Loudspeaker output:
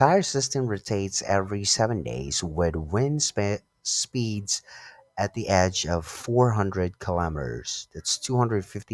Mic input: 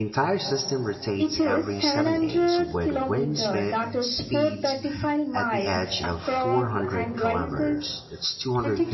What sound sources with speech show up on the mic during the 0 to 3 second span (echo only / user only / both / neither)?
both